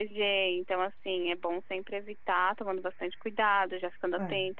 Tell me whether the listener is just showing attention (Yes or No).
Yes